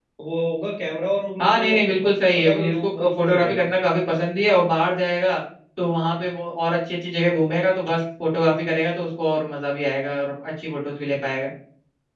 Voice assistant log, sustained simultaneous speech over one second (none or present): present